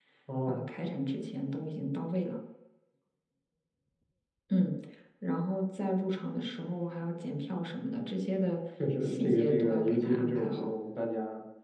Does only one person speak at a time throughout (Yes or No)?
No